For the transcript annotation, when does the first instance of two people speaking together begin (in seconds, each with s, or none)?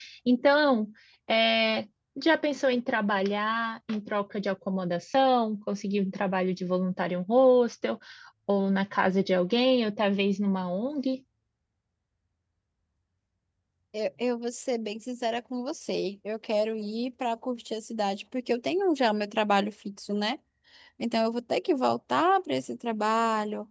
none